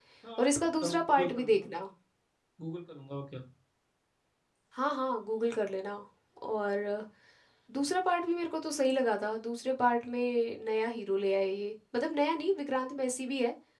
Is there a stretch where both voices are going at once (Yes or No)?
Yes